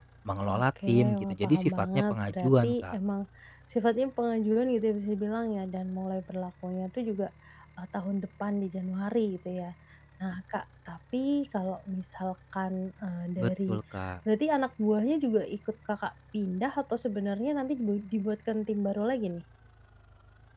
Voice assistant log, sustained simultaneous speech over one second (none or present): present